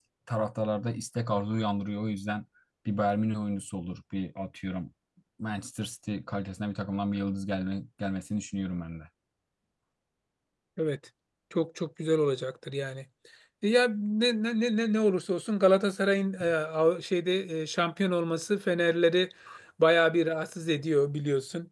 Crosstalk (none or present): none